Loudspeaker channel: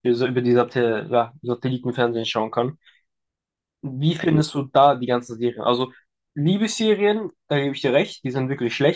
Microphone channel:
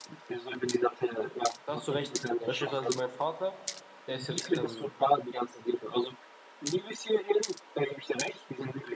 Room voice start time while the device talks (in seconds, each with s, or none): 1.6 s